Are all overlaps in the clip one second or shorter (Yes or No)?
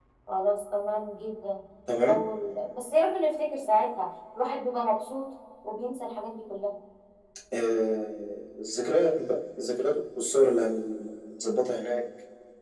Yes